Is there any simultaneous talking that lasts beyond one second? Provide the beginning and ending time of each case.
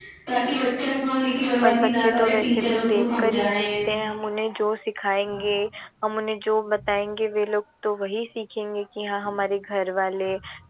1.6-3.6

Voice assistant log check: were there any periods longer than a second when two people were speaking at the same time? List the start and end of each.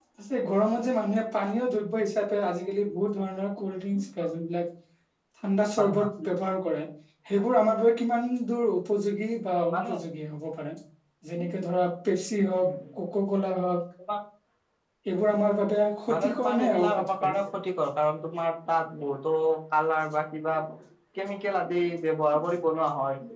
16.1-17.3

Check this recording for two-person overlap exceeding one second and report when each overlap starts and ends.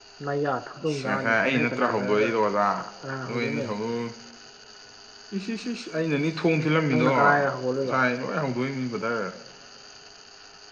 0.8-2.0

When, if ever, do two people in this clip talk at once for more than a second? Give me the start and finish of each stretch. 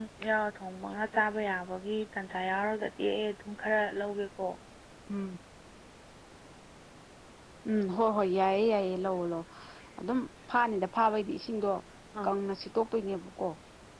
none

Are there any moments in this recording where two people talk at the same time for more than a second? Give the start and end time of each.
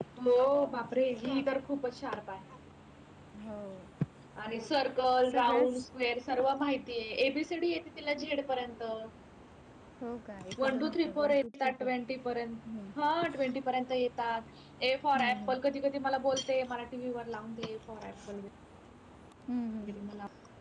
10.6-11.9

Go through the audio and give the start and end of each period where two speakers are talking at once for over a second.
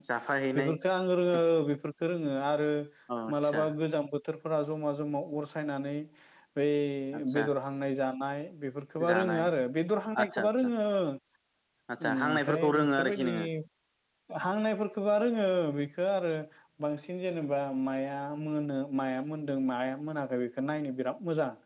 12.0-13.3

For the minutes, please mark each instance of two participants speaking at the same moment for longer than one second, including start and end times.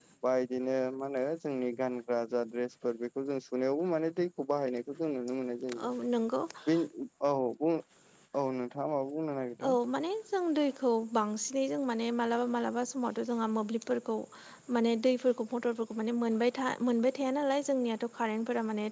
none

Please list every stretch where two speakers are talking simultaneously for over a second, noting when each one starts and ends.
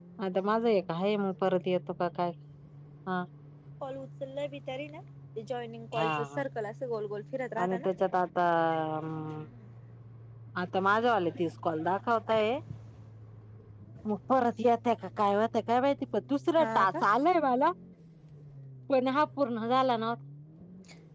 none

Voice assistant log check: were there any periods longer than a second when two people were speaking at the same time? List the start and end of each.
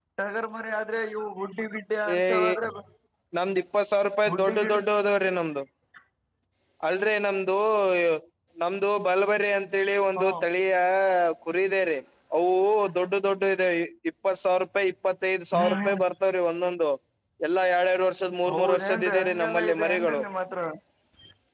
18.5-20.2

